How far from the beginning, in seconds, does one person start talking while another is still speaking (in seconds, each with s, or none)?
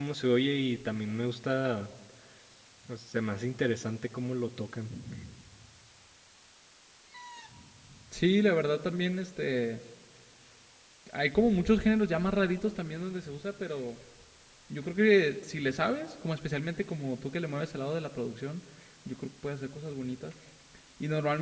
none